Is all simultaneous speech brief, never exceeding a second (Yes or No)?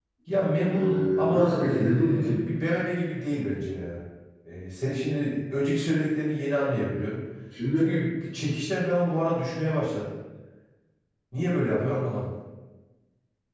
No